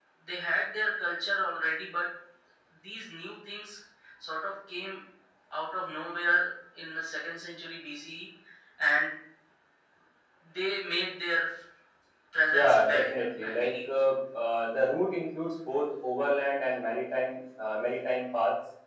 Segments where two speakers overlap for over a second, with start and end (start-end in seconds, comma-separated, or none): 12.5-13.7